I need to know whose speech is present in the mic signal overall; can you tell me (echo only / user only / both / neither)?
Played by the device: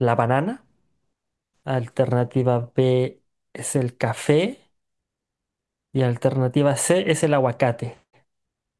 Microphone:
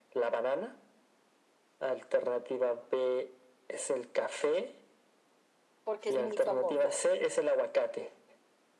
both